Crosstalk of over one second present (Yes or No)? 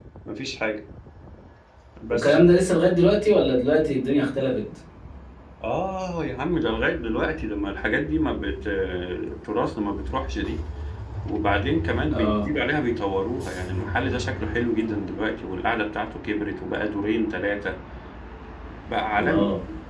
No